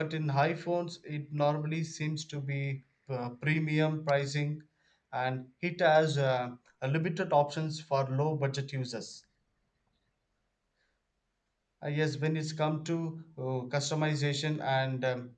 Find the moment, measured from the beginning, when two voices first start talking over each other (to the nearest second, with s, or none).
none